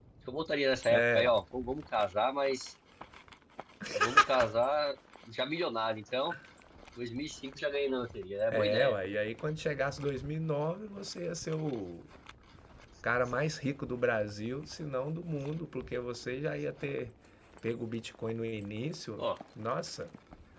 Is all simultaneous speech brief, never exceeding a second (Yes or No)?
Yes